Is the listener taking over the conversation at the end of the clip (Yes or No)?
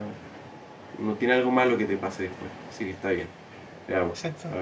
No